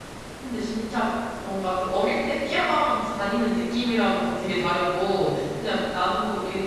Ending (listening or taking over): listening